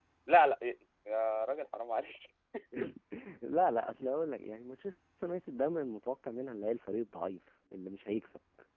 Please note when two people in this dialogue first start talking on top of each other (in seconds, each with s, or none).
none